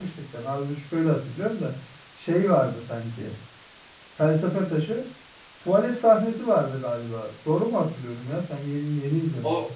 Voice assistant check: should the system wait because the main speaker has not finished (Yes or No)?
No